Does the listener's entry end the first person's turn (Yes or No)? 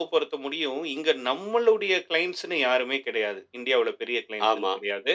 No